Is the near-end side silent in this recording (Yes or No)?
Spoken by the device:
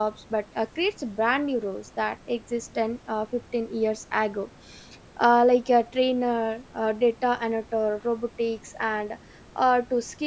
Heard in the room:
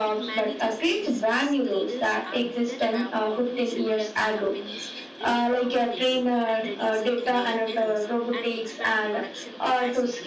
No